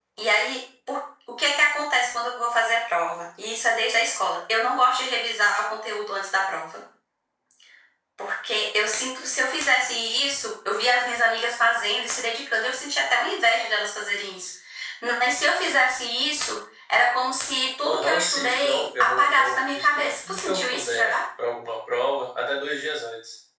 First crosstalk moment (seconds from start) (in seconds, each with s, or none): 17.8 s